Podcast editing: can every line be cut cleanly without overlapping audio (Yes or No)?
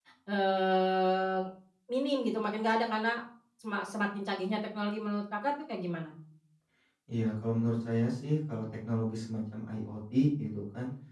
Yes